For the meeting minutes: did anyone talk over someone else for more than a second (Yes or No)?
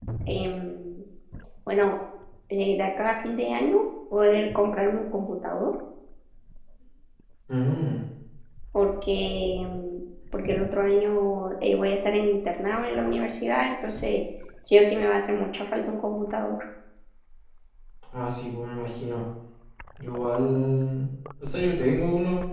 No